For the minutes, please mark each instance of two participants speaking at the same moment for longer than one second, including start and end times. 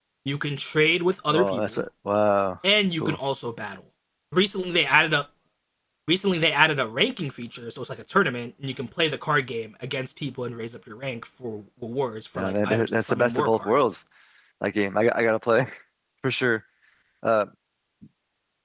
12.4-13.8

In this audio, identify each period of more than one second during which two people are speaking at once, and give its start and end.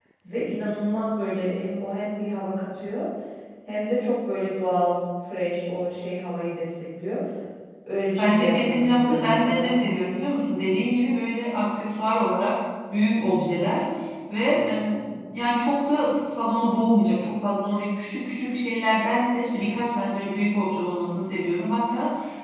8.2-9.8

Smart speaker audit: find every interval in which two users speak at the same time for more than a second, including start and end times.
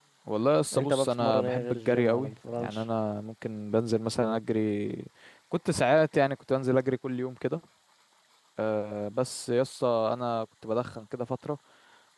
0.8-2.8

